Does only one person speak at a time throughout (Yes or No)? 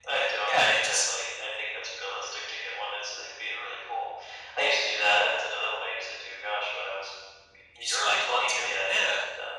No